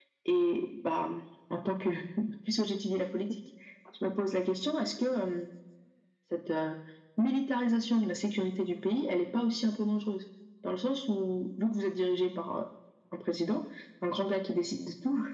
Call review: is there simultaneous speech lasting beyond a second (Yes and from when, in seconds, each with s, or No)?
No